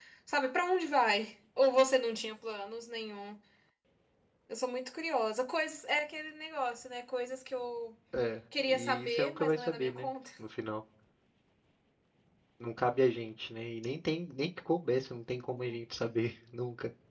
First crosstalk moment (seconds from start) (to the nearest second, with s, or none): 9 s